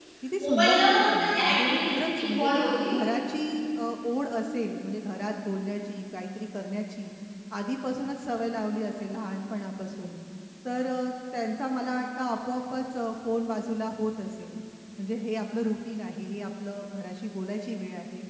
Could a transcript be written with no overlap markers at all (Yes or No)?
No